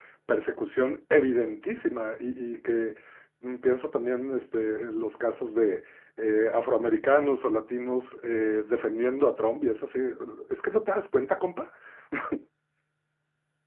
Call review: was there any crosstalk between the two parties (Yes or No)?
No